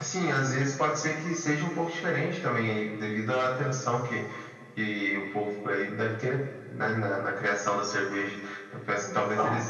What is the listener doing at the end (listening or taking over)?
listening